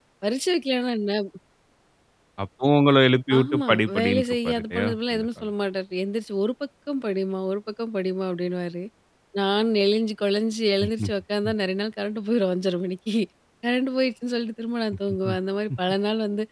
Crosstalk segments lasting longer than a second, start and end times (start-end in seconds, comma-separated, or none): 3.4-5.5